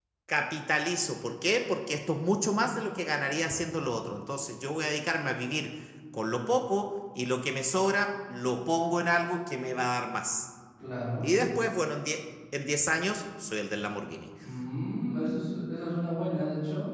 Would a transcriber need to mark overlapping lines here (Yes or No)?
No